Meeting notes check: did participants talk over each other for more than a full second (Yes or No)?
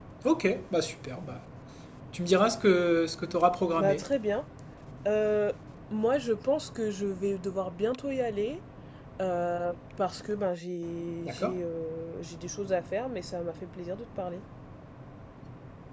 No